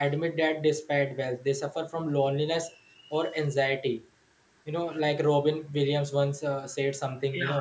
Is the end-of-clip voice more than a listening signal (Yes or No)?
No